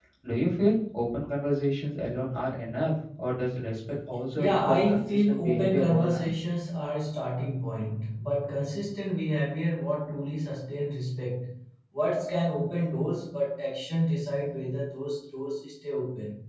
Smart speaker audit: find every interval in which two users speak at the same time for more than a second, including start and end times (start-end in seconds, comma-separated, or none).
4.4-6.3